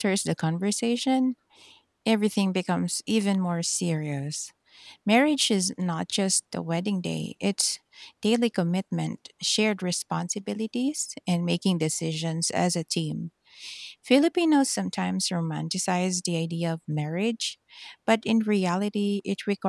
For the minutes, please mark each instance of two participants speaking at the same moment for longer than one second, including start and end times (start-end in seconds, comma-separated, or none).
none